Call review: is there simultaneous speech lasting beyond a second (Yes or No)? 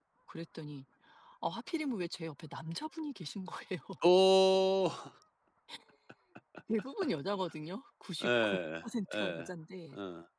Yes